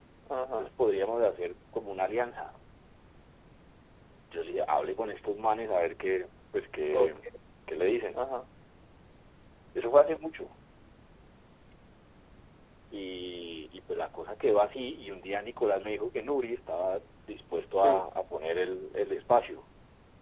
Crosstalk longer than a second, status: none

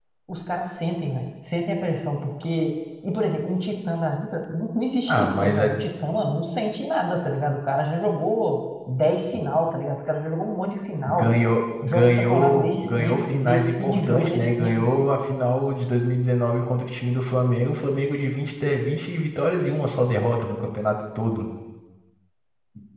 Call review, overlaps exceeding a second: present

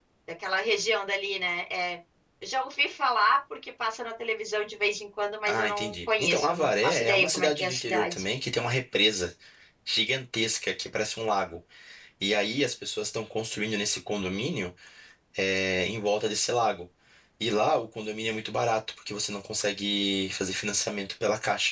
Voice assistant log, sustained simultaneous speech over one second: present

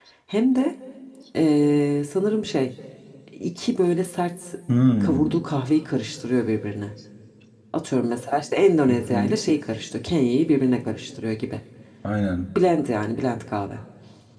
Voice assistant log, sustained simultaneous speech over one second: none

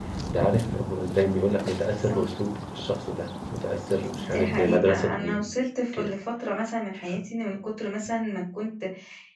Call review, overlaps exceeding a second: present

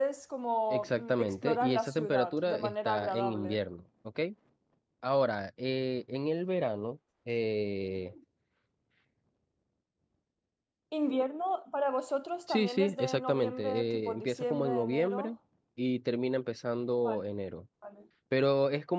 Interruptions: present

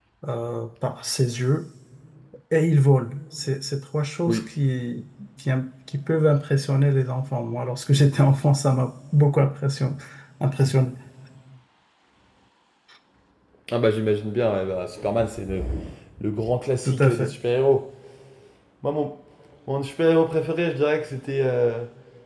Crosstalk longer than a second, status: none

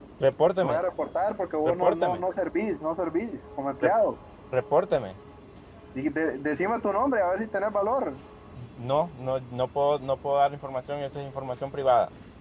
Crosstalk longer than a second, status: none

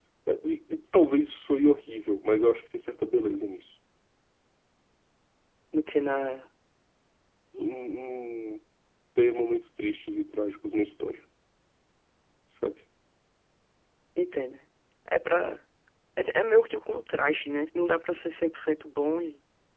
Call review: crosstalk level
none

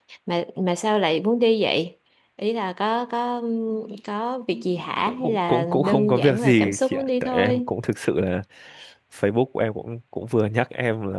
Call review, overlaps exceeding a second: present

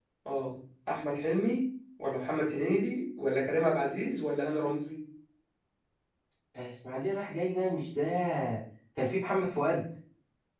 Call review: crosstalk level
none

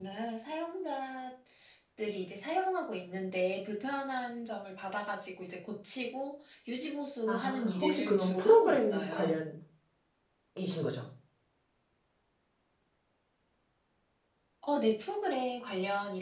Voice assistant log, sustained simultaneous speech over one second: present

